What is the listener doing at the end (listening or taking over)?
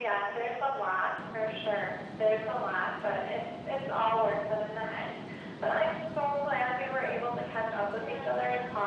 listening